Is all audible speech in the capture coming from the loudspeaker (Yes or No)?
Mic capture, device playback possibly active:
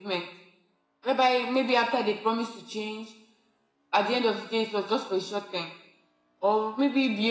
Yes